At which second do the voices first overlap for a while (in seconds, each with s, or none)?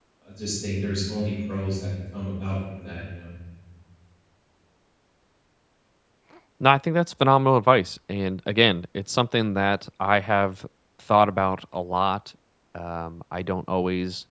none